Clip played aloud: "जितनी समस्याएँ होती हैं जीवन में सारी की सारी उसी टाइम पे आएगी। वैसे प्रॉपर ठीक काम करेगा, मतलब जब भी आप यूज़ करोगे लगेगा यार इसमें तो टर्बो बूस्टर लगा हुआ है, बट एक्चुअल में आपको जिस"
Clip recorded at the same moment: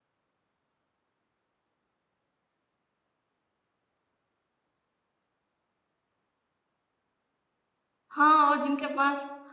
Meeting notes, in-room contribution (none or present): present